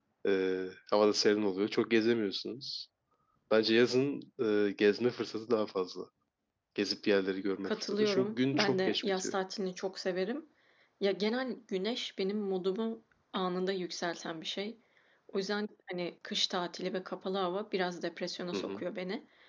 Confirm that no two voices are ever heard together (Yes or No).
No